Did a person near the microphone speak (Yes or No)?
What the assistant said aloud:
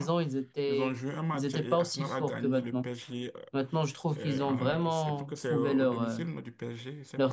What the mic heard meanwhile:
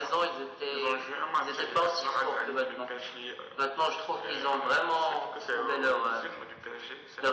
No